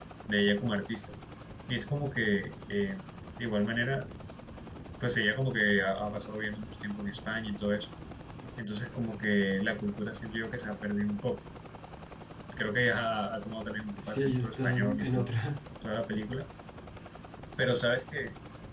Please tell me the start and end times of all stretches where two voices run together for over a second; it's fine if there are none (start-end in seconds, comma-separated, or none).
14.0-15.3